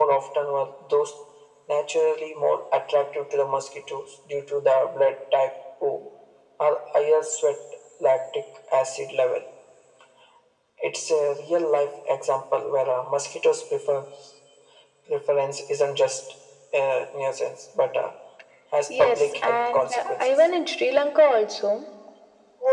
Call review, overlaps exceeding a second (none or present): present